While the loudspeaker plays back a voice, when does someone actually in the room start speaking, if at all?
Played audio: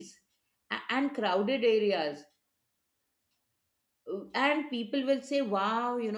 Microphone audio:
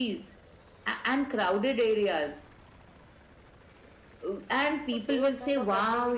4.8 s

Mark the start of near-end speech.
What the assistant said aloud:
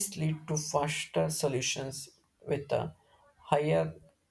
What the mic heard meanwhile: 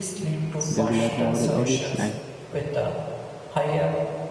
0.8 s

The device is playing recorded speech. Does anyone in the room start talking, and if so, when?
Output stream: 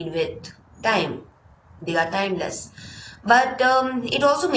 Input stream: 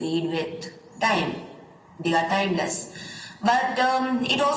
none

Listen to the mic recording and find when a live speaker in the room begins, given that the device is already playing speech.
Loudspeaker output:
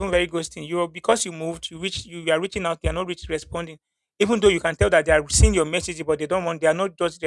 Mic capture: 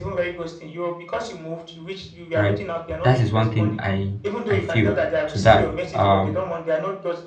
2.4 s

